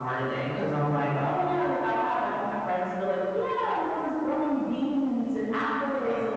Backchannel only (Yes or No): Yes